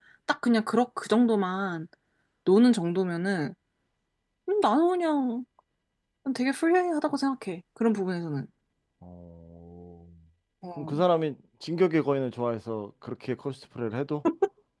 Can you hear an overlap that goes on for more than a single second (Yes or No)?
No